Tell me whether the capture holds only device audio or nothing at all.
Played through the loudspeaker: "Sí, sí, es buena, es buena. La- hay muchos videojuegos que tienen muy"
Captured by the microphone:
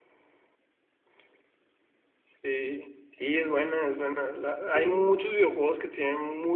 No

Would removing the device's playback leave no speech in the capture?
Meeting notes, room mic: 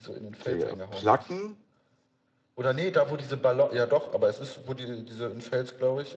No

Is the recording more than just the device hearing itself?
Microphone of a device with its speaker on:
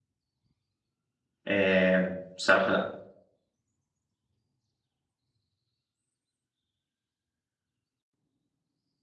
Yes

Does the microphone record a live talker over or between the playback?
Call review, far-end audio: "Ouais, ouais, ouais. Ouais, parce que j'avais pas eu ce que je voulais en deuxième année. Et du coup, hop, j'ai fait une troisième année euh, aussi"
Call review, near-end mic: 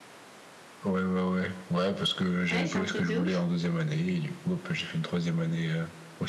Yes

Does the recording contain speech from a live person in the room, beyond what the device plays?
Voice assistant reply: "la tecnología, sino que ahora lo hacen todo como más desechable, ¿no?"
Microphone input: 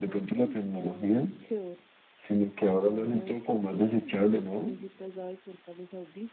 Yes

